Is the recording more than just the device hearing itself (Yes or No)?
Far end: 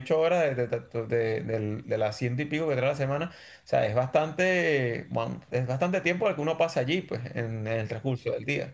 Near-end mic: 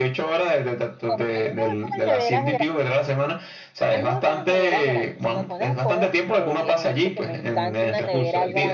Yes